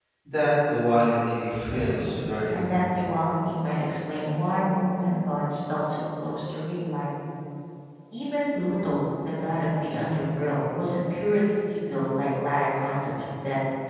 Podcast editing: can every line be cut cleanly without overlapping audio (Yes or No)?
No